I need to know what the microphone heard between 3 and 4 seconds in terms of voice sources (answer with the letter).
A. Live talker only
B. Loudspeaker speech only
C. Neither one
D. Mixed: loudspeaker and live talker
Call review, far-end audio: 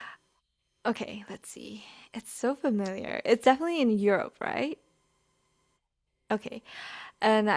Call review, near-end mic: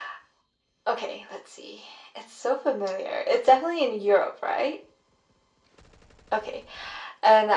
B